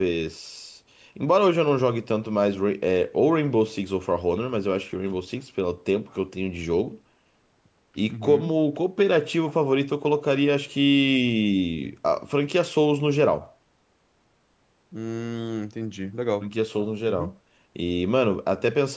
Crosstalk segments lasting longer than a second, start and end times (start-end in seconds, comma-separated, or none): none